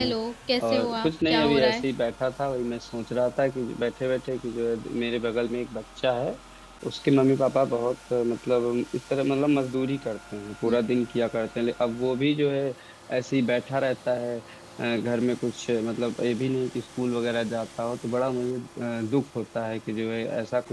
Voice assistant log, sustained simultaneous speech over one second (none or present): present